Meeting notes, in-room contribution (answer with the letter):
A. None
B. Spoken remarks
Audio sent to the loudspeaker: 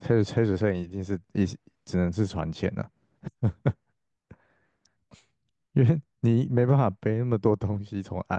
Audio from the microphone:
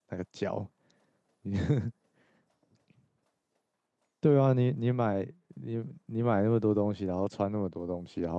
B